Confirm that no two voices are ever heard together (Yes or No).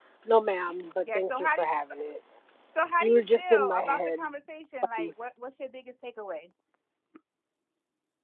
No